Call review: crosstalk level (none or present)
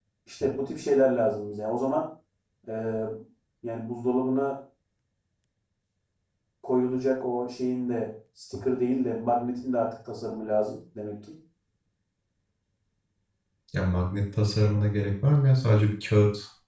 none